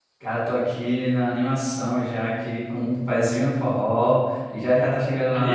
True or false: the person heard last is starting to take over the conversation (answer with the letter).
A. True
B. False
B